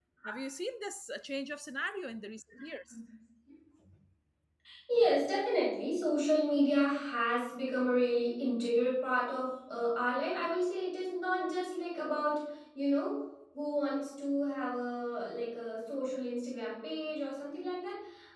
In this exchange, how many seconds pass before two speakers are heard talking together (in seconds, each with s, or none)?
none